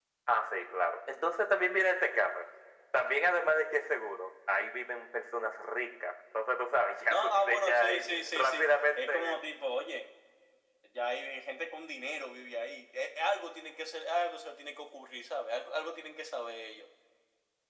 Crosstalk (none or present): present